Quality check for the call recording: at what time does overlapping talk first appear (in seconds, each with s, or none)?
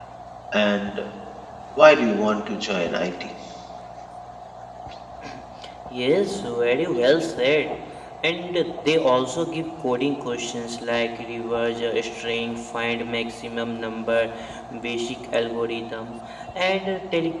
none